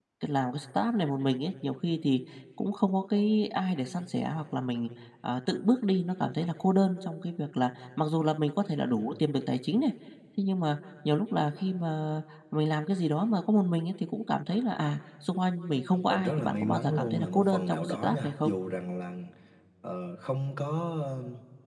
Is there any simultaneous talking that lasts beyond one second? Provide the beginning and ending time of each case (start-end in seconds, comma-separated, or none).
16.1-18.5